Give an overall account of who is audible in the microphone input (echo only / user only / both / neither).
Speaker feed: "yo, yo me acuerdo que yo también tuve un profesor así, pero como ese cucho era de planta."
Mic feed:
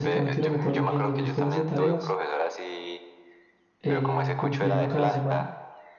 both